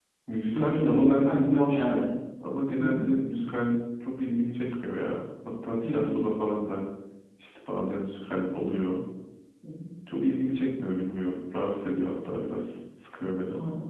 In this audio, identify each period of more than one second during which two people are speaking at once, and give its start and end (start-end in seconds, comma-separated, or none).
0.6-2.1